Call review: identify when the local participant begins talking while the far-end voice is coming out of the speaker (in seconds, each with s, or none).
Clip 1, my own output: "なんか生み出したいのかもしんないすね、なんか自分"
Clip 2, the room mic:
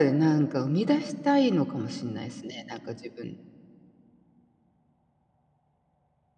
none